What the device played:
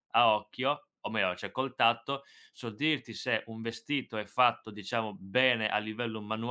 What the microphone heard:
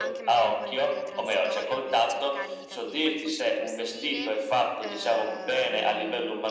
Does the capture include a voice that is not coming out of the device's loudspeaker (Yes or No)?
Yes